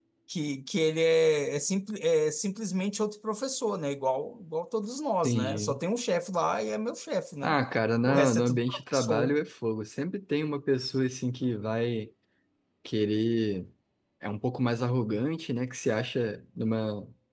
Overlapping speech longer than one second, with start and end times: 8.1-9.3

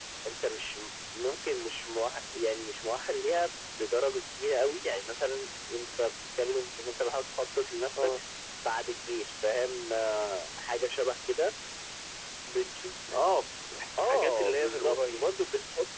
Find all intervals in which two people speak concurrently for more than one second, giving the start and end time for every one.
14.0-15.3

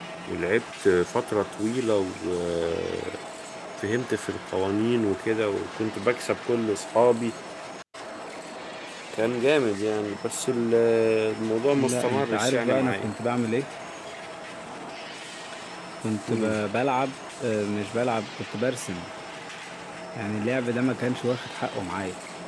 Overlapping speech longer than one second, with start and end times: 11.7-13.1

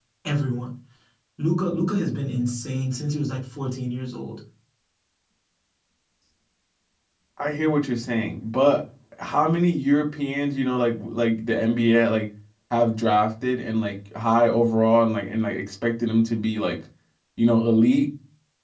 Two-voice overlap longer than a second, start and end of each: none

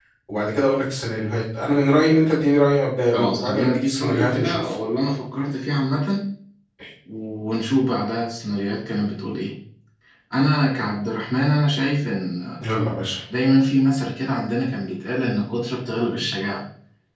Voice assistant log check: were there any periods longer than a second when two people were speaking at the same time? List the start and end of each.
3.1-4.7

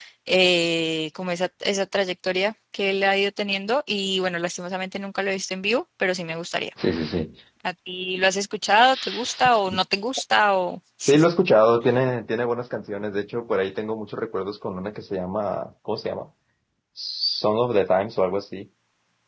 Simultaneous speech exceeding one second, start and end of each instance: none

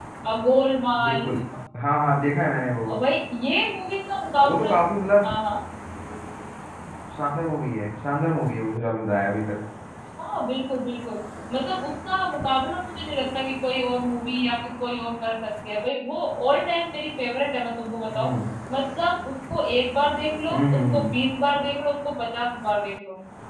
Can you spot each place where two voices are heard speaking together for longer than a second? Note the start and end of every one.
none

